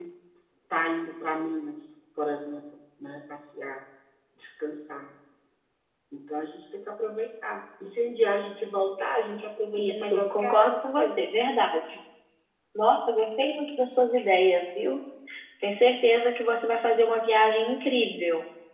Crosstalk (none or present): present